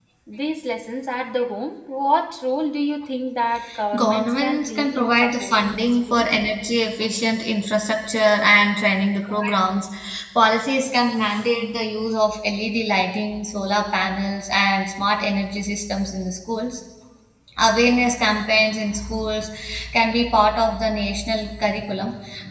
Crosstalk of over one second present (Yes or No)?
Yes